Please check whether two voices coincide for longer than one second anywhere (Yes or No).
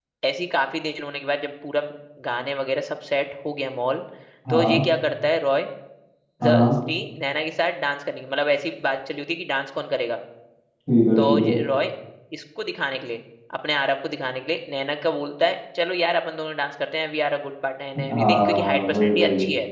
Yes